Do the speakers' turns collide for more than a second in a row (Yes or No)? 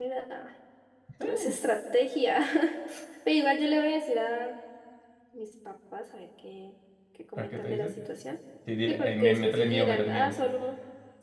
Yes